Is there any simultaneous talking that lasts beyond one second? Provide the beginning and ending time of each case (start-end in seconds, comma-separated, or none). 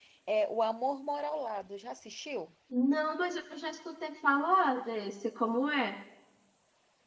none